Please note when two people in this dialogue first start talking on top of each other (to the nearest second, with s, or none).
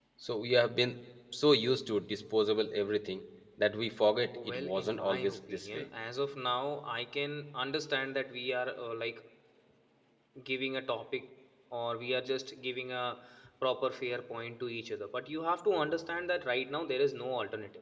4 s